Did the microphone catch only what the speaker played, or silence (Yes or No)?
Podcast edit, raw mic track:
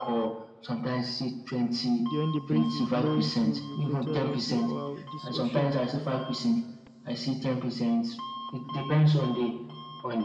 No